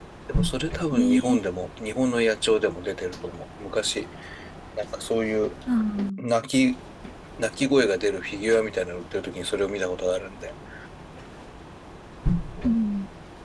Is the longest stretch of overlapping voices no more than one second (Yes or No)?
Yes